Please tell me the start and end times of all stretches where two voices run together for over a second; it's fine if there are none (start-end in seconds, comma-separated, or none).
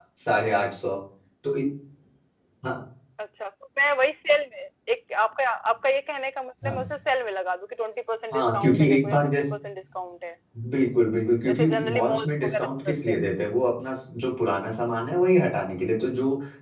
8.3-9.5, 11.4-13.2